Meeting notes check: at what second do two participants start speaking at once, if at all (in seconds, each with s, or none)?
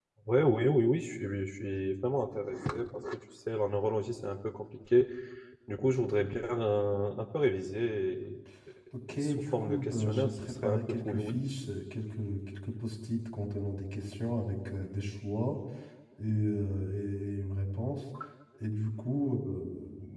9.1 s